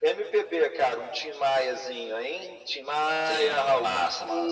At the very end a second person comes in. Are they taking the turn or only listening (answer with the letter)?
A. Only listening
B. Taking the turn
B